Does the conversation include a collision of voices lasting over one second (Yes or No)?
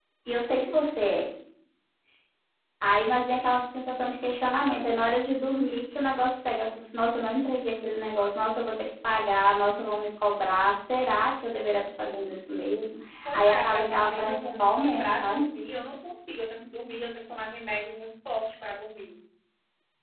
Yes